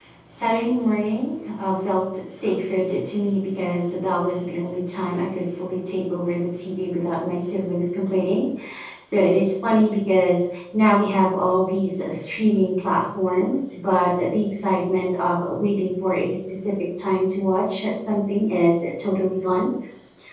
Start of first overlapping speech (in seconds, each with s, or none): none